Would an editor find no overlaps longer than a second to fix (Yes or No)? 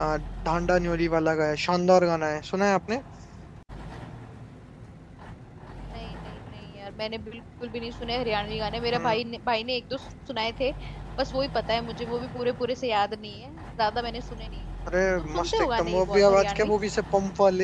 No